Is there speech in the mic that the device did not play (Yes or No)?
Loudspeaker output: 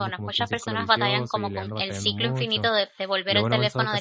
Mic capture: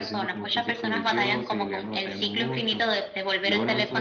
No